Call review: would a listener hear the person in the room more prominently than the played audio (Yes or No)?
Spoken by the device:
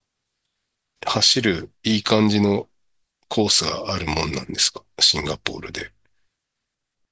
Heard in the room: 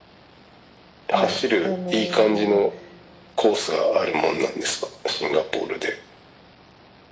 No